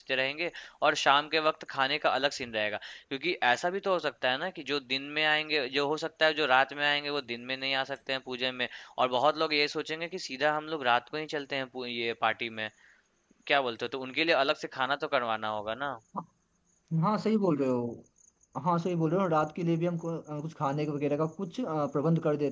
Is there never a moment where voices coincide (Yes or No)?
Yes